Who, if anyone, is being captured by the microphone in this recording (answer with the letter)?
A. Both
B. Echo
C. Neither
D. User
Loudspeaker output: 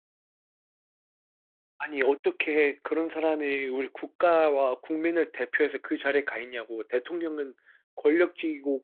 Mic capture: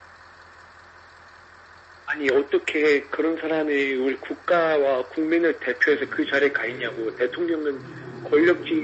A